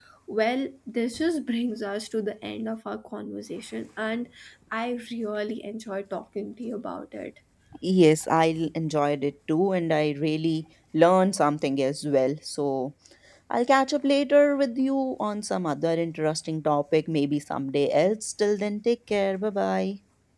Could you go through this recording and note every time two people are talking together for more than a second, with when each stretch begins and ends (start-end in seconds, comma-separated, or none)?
none